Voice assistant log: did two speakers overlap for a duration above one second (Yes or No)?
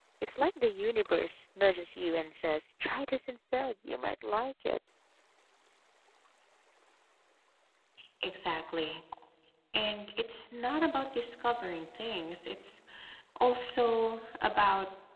No